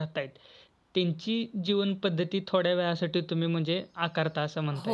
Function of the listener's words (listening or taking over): taking over